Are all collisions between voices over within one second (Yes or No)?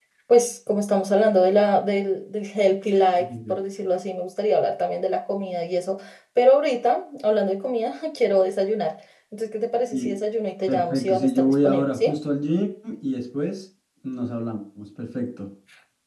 No